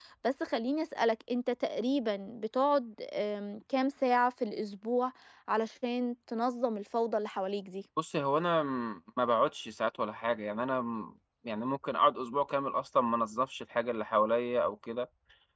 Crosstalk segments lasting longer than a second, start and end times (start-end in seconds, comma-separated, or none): none